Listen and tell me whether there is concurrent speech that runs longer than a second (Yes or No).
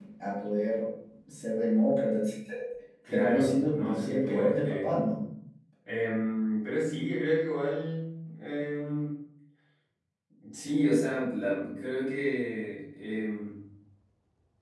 Yes